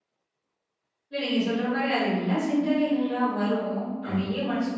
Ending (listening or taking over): listening